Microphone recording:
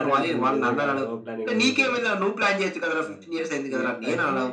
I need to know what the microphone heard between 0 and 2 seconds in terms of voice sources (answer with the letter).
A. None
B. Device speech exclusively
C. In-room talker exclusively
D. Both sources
D